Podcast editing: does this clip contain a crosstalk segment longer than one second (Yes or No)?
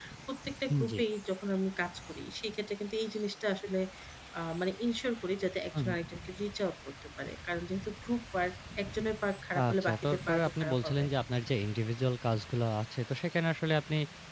Yes